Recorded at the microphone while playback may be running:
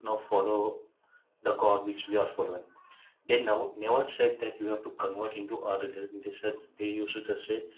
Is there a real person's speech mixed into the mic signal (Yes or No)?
No